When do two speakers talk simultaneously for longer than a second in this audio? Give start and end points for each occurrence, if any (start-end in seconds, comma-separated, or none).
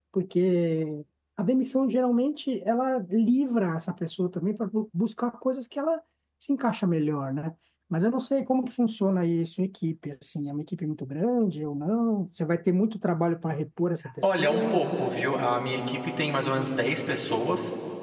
none